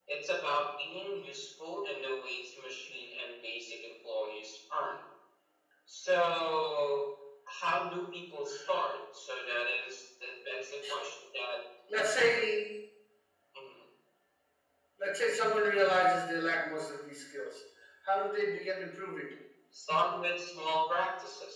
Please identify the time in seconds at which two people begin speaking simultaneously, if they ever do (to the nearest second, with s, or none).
none